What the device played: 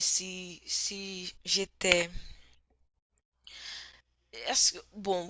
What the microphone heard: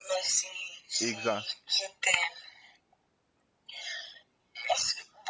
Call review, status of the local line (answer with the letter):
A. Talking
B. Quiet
A